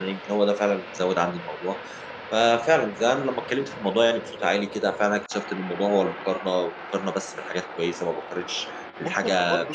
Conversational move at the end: taking over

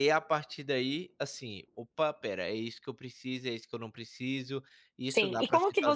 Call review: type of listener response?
taking over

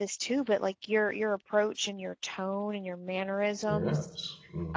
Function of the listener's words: taking over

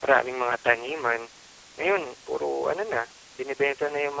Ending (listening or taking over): listening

